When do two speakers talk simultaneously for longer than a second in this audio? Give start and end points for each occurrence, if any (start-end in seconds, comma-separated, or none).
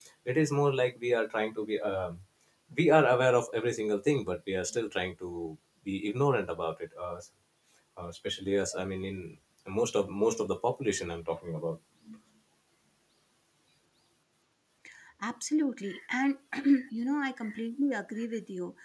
none